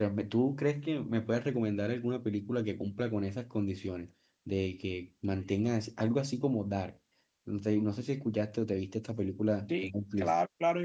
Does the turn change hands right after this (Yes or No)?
Yes